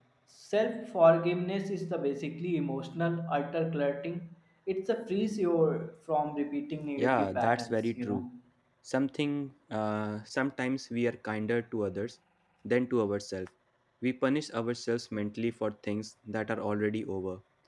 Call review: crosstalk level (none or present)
present